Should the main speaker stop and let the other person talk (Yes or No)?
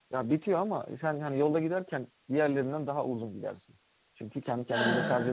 No